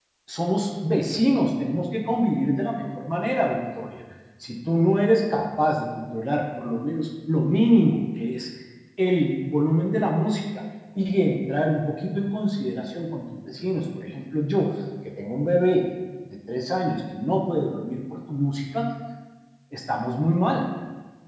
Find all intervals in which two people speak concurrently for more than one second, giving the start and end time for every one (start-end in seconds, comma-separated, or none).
none